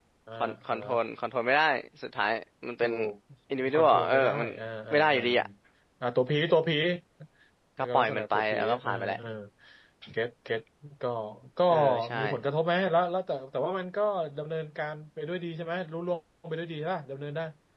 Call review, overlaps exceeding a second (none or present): present